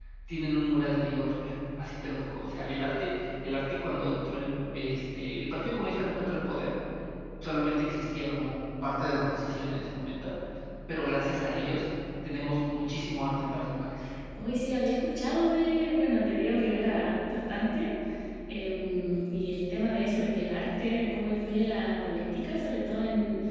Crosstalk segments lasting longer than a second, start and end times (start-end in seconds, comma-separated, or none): none